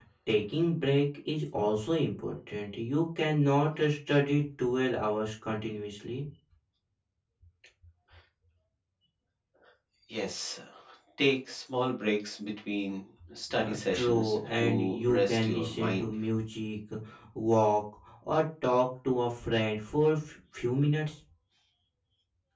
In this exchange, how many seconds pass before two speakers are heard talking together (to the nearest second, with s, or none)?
14 s